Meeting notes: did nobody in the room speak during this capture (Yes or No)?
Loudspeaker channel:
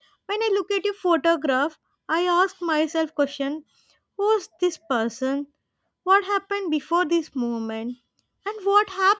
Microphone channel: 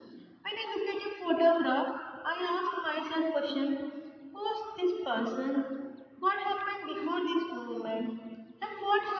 Yes